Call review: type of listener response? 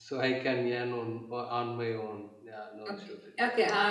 taking over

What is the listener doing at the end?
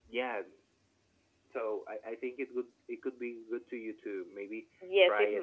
taking over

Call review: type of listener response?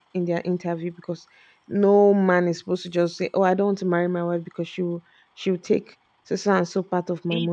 taking over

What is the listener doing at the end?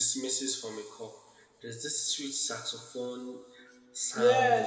taking over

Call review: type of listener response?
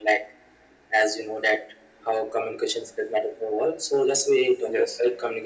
listening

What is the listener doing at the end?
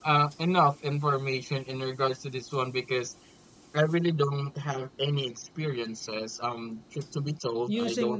listening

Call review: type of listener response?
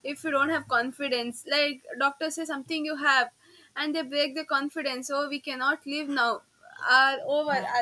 listening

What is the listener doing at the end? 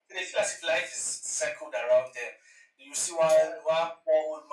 listening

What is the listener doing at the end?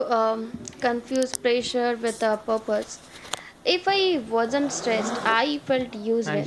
taking over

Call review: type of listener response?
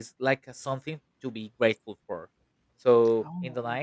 listening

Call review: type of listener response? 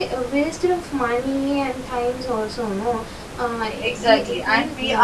taking over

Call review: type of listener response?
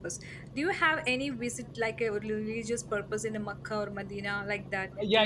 taking over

